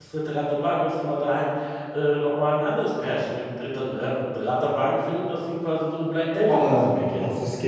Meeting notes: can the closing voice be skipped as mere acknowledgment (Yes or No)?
No